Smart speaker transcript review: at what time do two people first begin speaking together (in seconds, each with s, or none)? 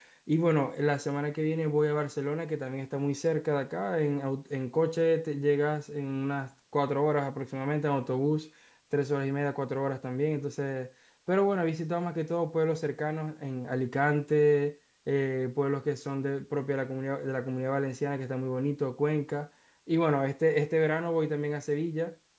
none